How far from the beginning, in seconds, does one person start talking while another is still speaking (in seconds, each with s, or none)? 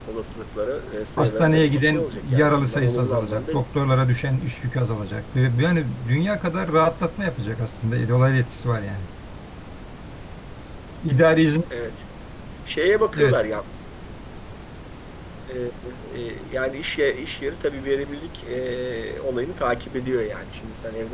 1.2 s